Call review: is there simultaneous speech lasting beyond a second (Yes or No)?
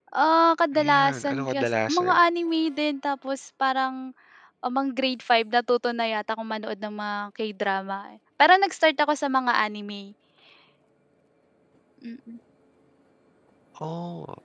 Yes